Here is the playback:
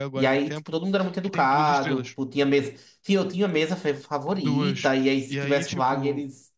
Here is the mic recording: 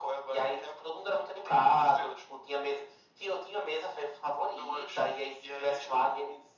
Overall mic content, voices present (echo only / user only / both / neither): echo only